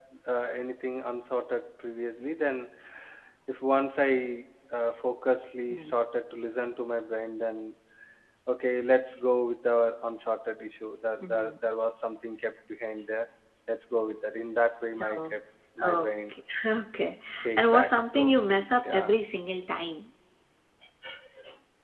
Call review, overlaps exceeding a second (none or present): present